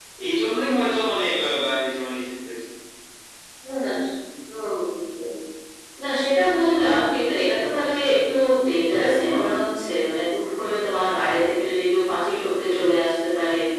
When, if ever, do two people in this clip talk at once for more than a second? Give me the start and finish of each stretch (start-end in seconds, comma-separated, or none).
none